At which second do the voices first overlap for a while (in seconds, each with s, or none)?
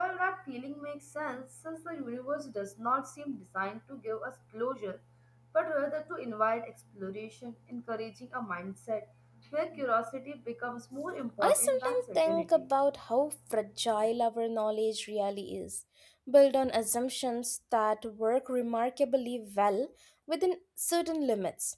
11.4 s